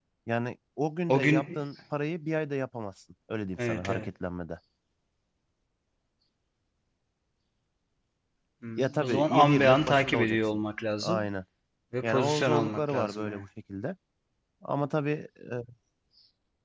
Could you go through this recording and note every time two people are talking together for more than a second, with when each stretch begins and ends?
8.8-10.6, 12.0-13.4

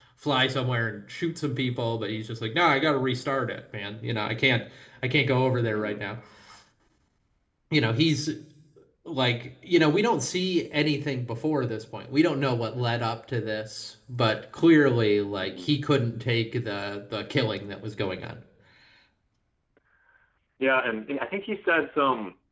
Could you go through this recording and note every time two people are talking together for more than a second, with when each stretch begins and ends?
none

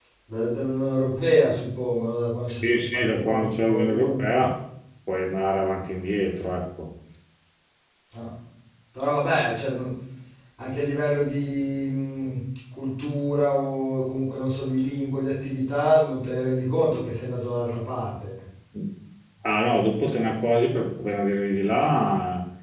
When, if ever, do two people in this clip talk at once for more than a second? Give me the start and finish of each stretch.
2.6-4.2

